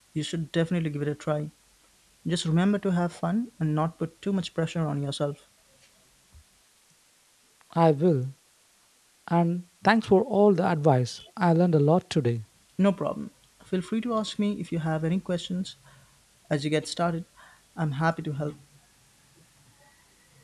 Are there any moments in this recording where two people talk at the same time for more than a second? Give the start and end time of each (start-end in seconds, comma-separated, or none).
none